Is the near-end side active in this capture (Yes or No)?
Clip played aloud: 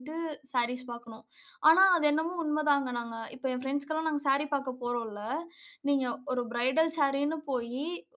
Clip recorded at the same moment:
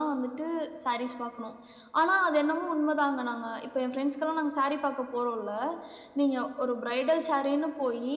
No